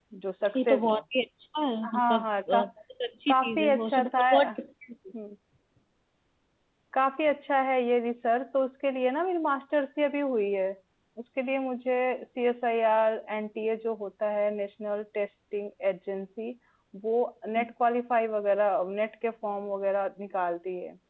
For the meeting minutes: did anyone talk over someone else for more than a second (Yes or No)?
Yes